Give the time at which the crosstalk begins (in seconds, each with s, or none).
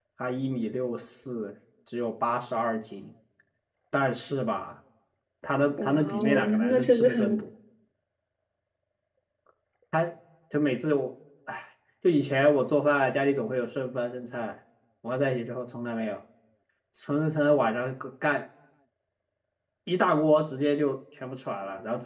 5.8 s